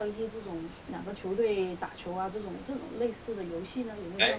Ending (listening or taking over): taking over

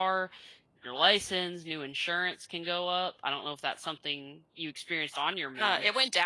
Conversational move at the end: taking over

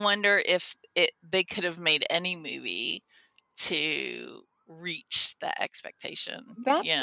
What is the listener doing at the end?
taking over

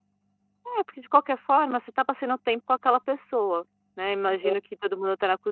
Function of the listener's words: listening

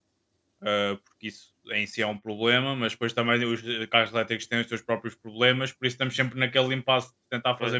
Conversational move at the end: listening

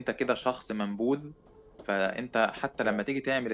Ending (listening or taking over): listening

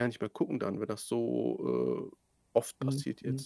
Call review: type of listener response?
taking over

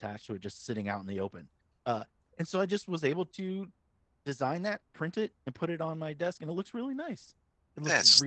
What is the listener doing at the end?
taking over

